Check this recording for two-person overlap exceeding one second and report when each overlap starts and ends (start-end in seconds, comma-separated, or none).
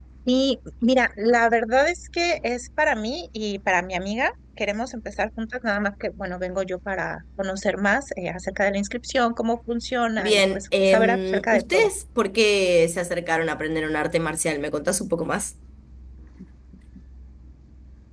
10.2-11.9